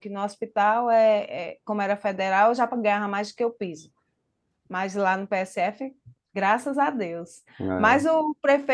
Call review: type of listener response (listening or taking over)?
listening